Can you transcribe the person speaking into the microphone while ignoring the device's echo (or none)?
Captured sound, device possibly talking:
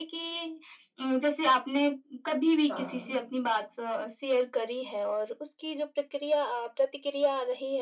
समझी।